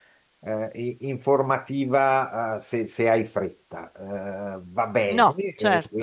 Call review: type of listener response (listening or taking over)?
listening